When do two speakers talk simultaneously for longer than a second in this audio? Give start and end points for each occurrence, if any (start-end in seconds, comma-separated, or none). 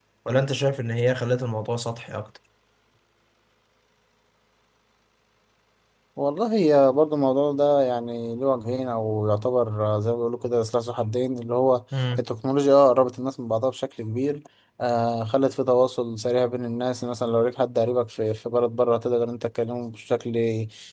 none